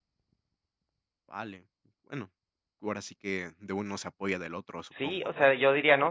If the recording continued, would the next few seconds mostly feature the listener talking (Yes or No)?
Yes